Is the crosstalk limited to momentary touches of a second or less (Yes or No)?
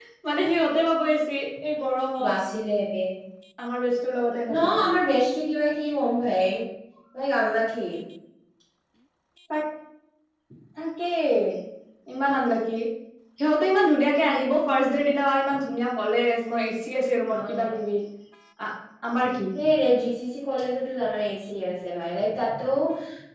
Yes